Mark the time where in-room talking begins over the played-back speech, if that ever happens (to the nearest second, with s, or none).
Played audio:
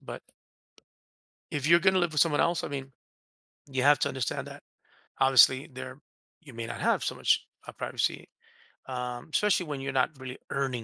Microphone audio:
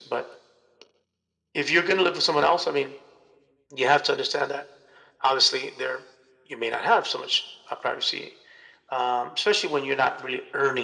none